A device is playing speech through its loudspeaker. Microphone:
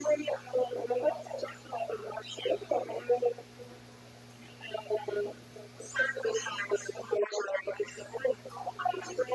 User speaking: No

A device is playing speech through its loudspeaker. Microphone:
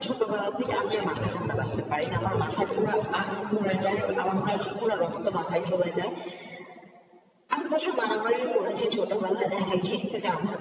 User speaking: No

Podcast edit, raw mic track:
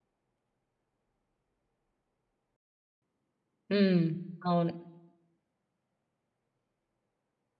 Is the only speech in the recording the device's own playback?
No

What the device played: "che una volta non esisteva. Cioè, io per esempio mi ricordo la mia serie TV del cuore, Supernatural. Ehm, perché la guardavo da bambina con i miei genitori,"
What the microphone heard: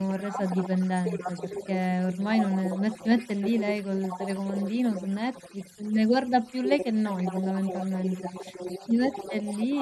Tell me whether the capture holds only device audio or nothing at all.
No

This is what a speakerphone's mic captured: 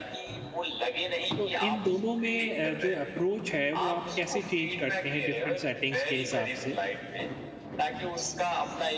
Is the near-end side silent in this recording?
No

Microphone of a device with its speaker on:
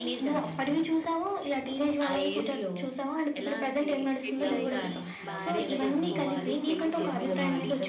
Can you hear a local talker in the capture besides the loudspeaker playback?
Yes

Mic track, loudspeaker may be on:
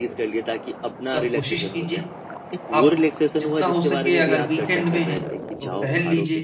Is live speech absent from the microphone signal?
No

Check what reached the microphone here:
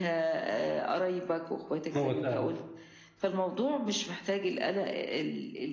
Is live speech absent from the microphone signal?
No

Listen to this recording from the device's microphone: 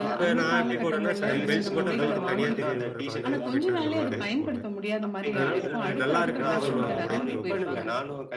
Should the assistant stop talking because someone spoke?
Yes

